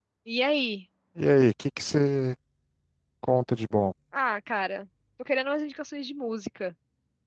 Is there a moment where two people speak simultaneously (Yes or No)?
No